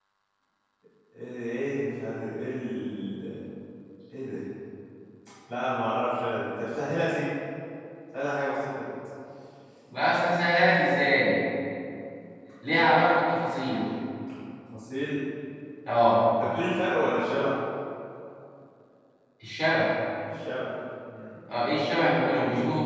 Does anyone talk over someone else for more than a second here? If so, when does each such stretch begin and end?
none

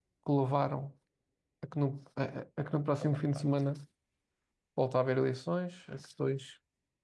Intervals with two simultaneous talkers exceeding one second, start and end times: none

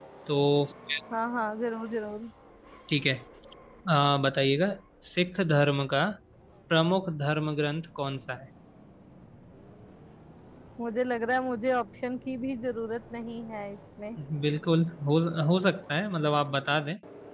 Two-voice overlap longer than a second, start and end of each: none

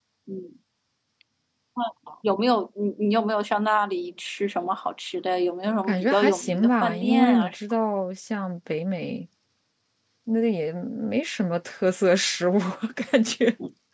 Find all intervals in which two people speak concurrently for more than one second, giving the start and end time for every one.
5.8-7.5

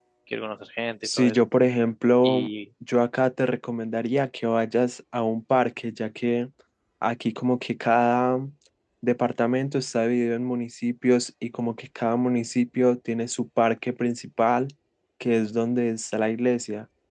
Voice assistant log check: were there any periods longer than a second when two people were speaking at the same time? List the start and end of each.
none

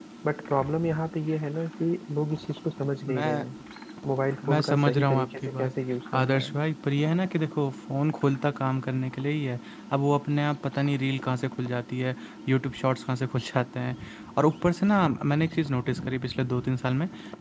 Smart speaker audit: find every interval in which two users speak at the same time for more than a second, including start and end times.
4.5-5.7

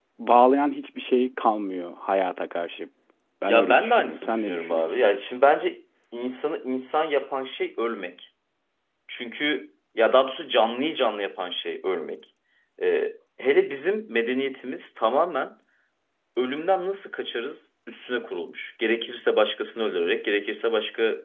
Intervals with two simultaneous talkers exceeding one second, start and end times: 3.5-5.1

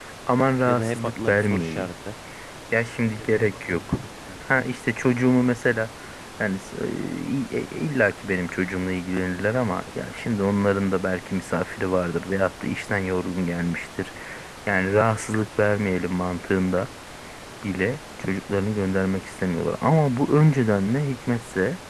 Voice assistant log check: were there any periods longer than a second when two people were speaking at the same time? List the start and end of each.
0.7-1.9

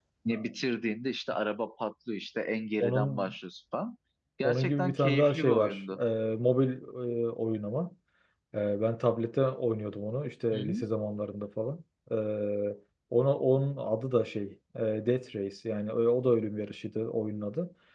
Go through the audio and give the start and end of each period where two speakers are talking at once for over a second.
4.4-6.0

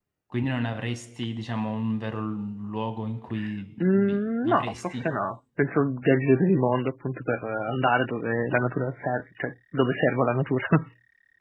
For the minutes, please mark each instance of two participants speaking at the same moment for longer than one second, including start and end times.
3.8-5.0

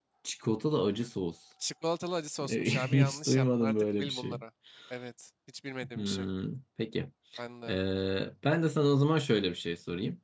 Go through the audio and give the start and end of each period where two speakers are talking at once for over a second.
2.4-4.4

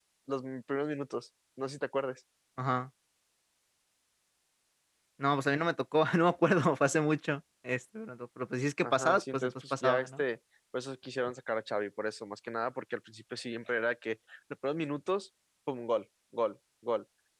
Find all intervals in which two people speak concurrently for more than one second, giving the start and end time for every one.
8.8-10.2

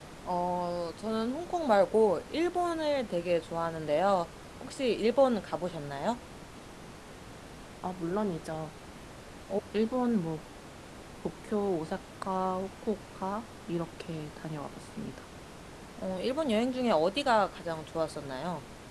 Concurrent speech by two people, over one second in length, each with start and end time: none

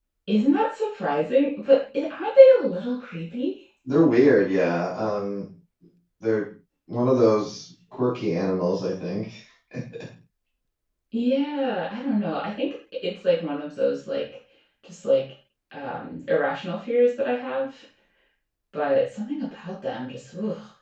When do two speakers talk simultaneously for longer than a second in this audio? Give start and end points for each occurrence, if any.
none

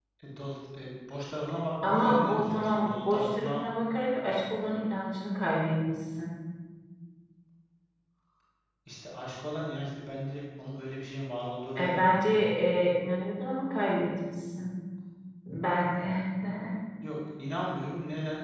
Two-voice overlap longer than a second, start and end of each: 1.8-3.6

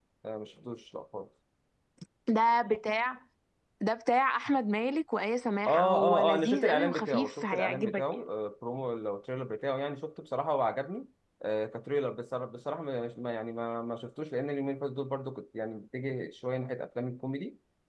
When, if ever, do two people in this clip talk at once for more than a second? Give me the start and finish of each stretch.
5.7-8.2

